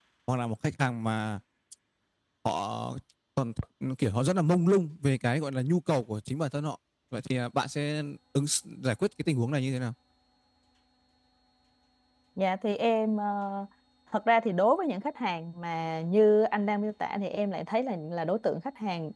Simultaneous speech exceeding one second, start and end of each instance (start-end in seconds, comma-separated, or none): none